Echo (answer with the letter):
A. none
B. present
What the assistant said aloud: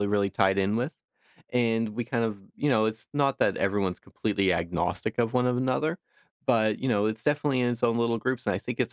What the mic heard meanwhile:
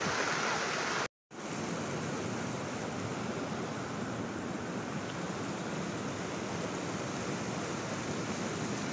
A